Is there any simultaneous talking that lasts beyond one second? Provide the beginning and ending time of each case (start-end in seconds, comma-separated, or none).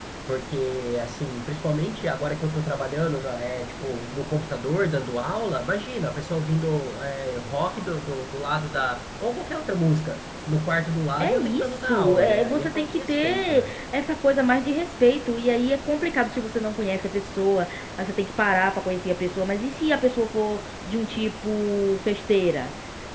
11.2-13.8